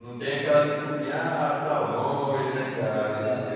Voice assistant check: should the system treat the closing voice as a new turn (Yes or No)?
No